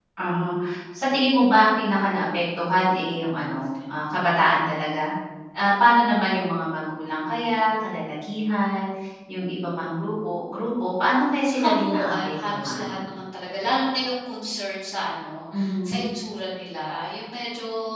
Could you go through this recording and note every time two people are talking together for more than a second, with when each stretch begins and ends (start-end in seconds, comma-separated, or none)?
11.4-13.0